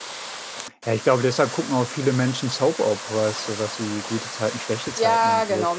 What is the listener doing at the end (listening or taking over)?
taking over